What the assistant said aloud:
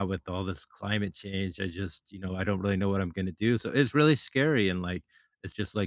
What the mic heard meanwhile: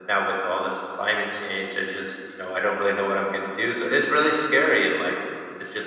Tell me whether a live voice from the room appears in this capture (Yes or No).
No